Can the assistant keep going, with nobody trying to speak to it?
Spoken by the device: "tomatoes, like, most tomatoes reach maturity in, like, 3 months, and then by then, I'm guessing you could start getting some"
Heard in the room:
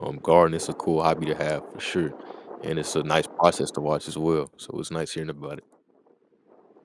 No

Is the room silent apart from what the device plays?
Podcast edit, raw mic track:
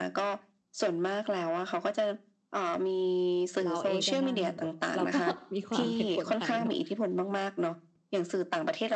No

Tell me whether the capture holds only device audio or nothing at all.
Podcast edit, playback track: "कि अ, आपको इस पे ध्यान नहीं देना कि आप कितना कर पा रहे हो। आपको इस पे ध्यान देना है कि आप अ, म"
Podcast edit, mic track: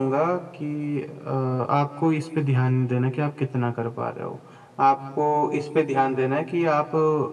Yes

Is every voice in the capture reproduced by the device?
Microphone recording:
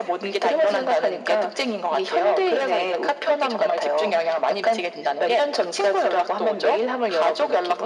Yes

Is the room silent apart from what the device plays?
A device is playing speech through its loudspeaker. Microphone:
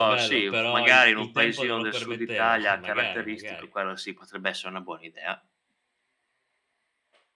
No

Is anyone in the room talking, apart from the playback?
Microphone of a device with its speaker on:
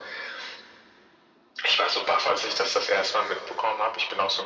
No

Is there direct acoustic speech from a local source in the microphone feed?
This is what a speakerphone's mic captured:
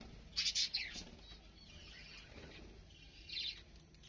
No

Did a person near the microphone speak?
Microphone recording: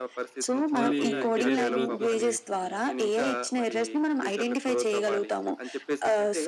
Yes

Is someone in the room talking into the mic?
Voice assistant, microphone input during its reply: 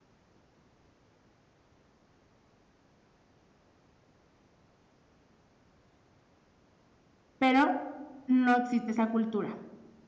Yes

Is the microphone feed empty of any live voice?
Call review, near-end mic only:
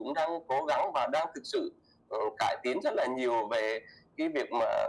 Yes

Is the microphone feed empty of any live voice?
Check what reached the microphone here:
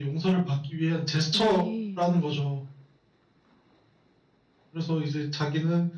No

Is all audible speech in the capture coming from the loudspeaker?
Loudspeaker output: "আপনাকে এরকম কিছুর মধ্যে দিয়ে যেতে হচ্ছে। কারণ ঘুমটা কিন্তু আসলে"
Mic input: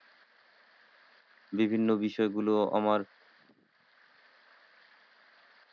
No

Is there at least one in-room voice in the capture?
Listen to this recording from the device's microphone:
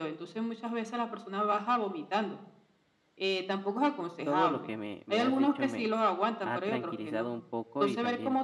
Yes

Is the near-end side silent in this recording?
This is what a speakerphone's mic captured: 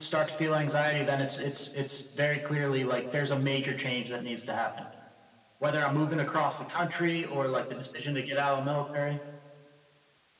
Yes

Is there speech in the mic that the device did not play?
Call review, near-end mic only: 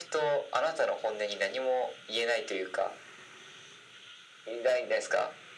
No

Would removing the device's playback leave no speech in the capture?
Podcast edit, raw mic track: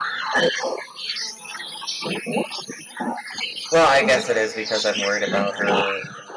No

